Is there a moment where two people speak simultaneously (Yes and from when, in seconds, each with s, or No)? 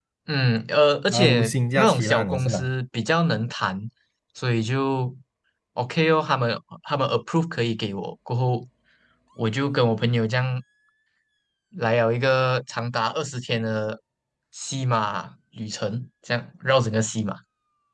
Yes, from 1.1 s